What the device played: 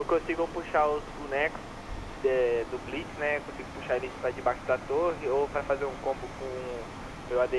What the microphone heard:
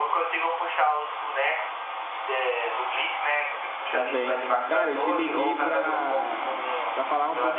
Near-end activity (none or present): present